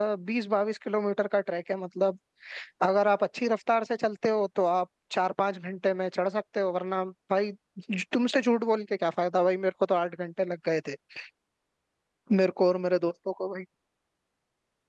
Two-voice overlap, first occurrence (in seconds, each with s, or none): none